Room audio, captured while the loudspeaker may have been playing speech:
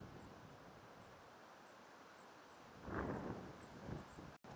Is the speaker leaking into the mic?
No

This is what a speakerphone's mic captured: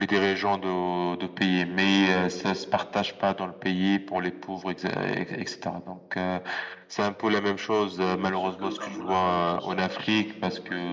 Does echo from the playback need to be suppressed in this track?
Yes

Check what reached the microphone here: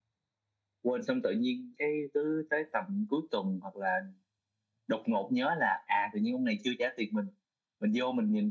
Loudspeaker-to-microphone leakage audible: Yes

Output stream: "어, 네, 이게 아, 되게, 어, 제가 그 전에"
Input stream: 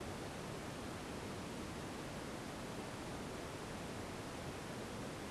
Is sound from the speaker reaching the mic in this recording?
No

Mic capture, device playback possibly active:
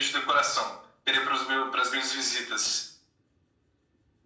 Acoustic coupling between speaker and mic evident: Yes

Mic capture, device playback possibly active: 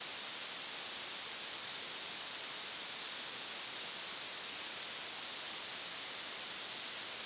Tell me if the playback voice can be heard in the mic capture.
No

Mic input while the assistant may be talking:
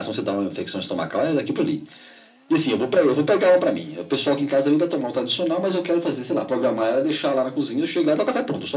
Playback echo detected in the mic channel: Yes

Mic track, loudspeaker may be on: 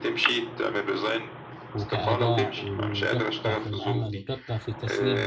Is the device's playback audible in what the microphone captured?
Yes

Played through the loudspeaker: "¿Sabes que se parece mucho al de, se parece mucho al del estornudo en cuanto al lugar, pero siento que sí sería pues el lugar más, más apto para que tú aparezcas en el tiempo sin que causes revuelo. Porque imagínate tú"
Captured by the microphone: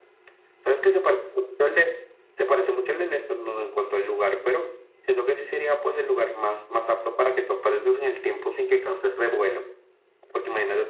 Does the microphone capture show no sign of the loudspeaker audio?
No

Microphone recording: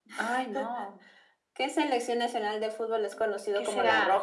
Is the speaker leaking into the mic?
Yes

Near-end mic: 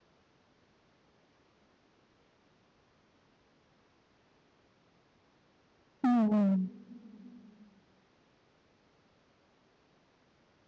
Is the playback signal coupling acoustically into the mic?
No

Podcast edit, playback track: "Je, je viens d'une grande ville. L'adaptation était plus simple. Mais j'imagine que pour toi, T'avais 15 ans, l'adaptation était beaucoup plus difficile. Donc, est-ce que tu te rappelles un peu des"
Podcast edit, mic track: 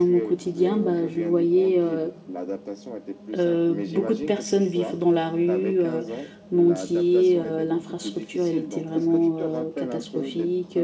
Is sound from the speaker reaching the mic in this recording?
Yes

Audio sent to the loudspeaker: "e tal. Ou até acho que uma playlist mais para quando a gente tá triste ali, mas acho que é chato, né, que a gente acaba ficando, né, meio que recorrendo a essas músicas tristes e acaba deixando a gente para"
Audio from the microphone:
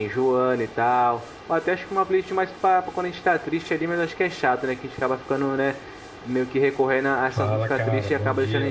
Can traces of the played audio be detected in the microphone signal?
Yes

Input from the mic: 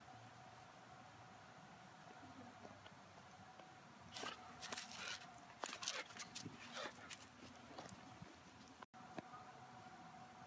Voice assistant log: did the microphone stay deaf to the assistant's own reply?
Yes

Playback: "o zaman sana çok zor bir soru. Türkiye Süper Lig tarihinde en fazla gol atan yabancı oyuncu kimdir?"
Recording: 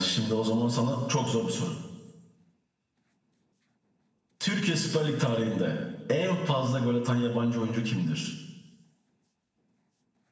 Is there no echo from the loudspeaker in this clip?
No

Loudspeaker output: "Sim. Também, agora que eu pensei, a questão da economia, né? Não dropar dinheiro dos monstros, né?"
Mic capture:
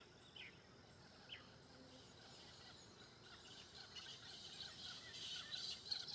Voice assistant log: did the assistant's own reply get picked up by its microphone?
No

